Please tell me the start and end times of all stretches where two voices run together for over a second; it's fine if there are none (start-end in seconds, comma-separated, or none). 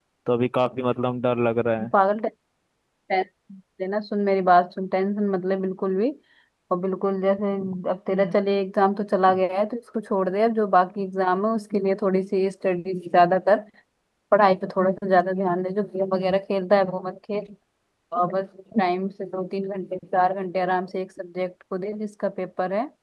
none